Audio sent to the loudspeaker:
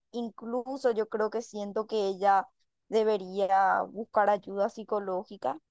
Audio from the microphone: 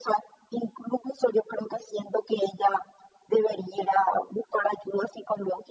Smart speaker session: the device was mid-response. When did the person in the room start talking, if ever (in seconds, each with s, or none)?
none